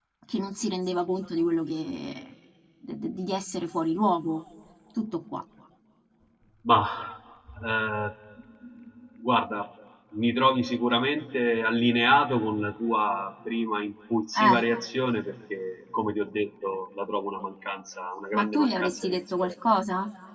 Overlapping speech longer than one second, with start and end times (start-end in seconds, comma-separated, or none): 18.3-19.5